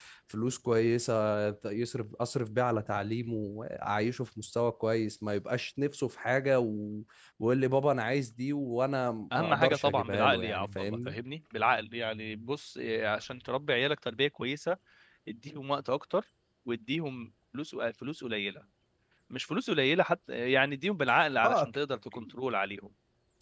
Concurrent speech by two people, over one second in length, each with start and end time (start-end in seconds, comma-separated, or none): 9.4-11.2